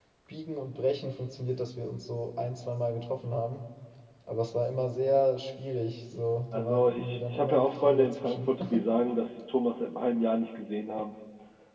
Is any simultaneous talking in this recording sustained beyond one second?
Yes, from 6.5 s

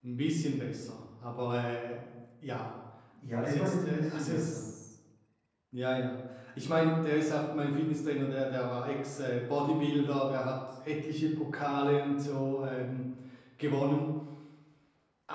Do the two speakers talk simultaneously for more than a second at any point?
Yes, from 3.4 s

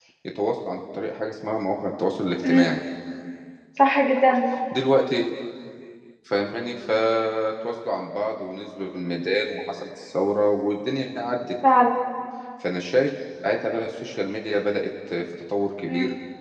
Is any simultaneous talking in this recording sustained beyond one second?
No

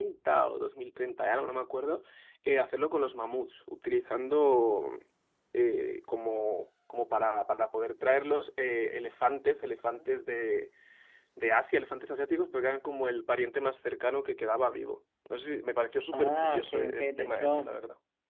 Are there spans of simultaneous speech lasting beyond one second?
Yes, from 16.1 s

